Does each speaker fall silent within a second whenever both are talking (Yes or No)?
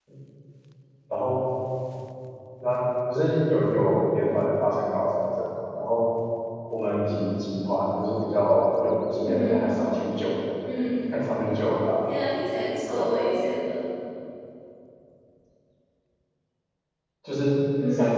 Yes